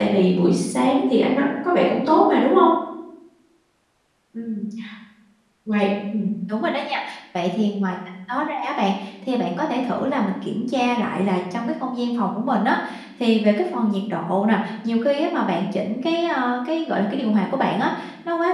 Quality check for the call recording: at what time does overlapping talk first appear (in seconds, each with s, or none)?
none